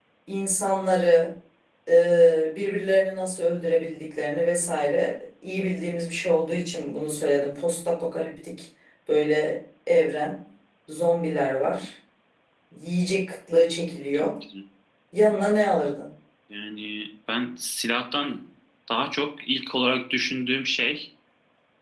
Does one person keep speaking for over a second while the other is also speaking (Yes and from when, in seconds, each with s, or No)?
No